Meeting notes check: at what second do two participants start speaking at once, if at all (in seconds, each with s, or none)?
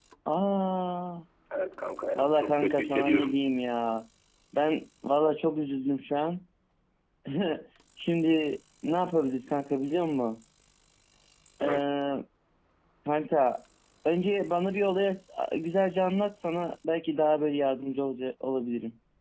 2.1 s